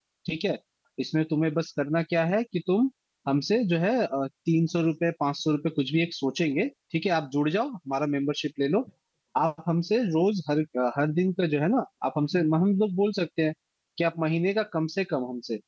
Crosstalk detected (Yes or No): No